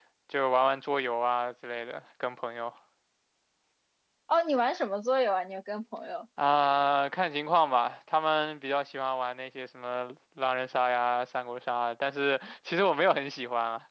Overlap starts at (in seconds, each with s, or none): none